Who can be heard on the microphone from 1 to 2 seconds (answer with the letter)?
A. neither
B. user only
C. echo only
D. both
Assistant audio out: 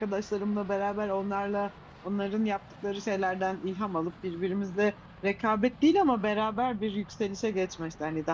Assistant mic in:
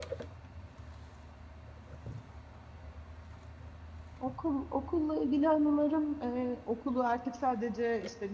A